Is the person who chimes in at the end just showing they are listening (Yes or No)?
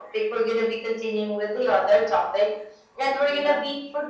Yes